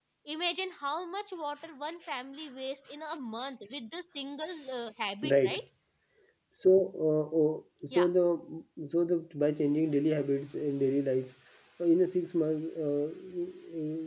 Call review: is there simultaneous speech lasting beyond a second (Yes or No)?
No